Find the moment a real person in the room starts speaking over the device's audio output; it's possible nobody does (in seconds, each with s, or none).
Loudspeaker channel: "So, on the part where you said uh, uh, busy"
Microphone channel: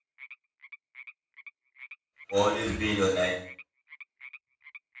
2.3 s